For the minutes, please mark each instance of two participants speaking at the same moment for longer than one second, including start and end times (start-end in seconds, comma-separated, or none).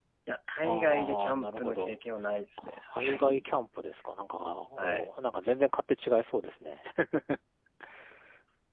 0.6-1.9